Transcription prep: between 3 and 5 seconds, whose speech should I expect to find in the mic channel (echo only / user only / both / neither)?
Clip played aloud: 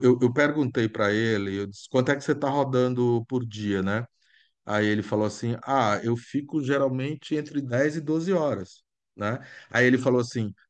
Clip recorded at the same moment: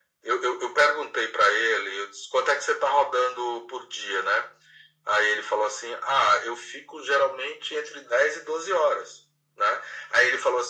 echo only